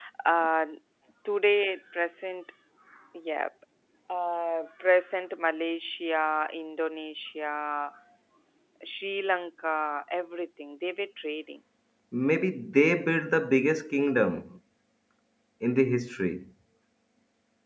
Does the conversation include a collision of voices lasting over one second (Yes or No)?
No